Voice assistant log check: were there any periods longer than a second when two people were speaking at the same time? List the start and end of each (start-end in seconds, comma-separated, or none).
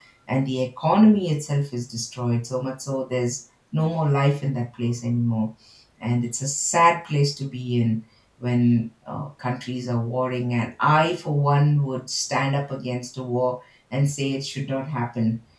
none